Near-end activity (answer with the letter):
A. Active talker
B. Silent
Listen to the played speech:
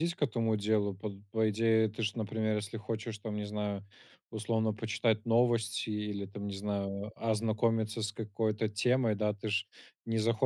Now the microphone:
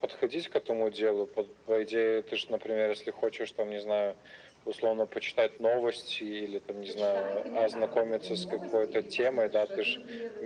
A